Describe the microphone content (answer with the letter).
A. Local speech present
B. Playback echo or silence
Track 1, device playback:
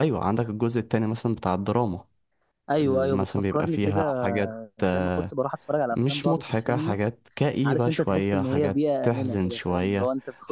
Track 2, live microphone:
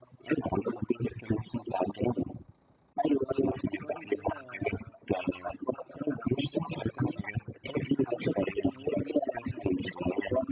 B